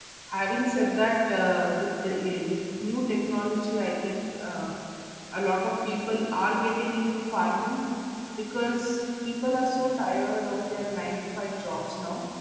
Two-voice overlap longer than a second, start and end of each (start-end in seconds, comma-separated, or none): none